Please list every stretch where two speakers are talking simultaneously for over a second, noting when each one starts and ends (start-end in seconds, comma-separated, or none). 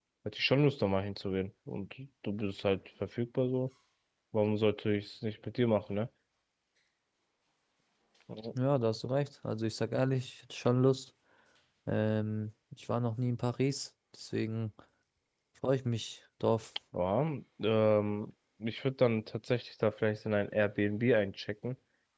none